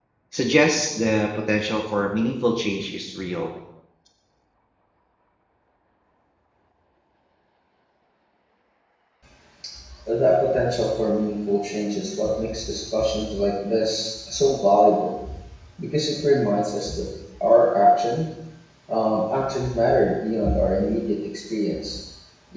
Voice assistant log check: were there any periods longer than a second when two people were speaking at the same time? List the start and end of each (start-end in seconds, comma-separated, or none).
none